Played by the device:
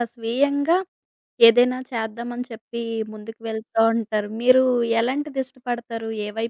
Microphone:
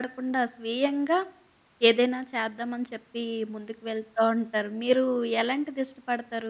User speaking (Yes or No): No